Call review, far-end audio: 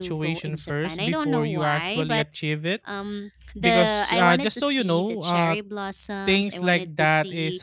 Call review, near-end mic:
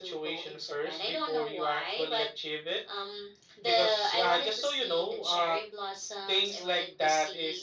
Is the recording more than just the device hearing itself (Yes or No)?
No